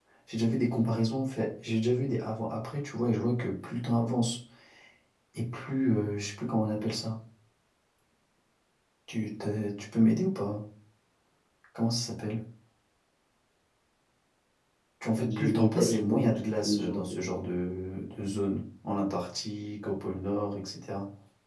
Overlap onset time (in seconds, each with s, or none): 15.2 s